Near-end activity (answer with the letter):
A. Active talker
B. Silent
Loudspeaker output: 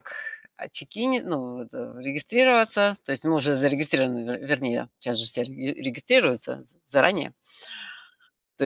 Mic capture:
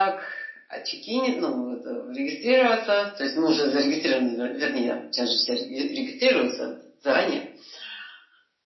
B